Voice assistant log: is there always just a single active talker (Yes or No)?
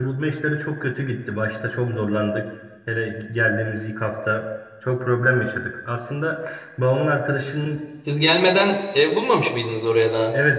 Yes